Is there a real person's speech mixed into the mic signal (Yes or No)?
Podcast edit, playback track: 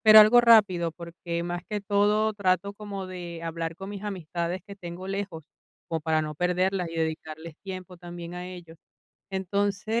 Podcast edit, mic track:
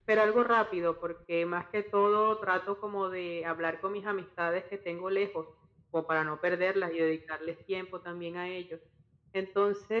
No